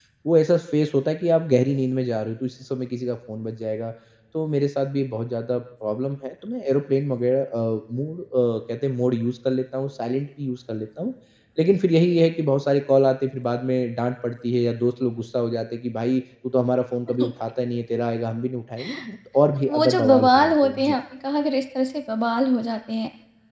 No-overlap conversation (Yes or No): No